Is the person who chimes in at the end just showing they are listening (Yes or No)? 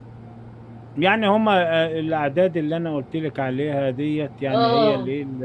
Yes